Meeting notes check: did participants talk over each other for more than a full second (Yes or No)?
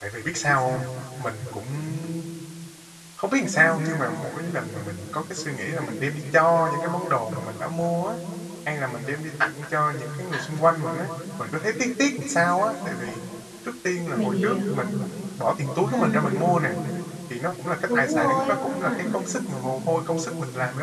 Yes